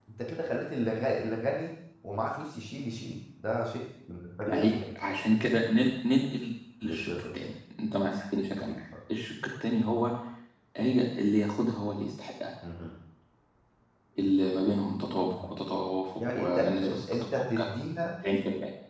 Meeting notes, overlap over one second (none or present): present